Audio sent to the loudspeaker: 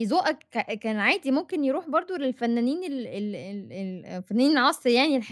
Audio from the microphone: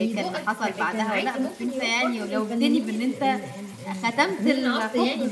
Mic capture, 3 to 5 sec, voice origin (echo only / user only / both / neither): both